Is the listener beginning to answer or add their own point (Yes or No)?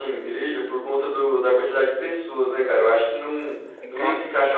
Yes